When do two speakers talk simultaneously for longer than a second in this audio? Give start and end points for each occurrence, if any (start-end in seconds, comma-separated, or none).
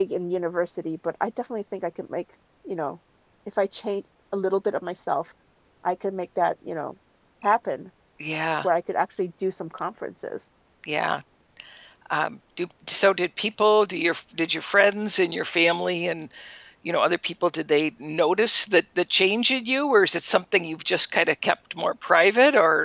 none